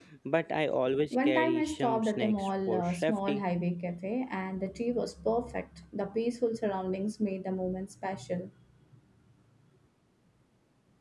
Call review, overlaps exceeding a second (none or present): present